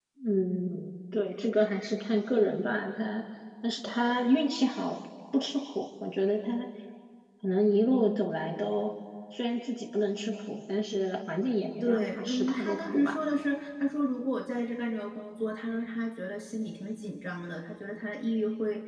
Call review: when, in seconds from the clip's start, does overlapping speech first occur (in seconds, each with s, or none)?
11.8 s